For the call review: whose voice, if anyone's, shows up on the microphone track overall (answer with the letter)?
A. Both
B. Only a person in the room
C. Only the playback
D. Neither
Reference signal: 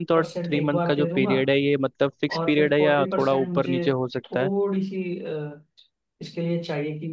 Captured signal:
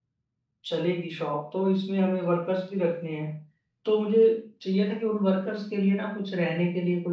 B